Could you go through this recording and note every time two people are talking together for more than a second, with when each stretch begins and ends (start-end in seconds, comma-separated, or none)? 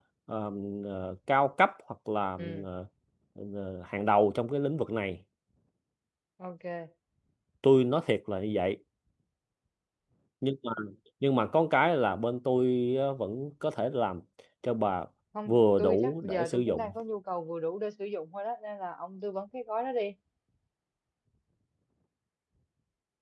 15.5-16.9